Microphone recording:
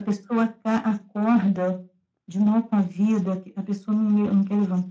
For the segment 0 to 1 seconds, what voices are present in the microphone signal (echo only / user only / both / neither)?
echo only